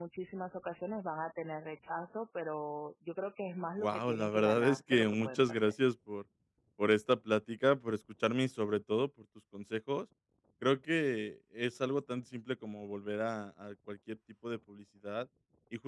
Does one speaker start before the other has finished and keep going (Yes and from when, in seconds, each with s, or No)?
Yes, from 3.8 s